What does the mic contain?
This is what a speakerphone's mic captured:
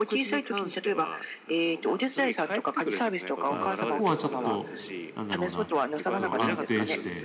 both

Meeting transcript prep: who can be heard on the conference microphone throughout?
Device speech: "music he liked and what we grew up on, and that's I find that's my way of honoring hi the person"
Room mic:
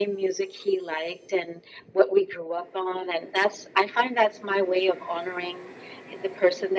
echo only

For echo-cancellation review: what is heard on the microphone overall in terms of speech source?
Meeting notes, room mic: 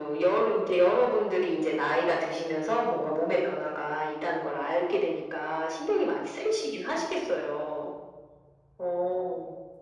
echo only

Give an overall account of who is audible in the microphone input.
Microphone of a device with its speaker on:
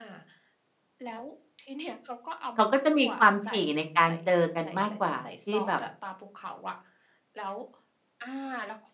both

